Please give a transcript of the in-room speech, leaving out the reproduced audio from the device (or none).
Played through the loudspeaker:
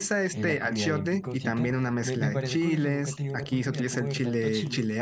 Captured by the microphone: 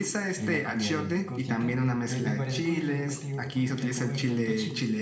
none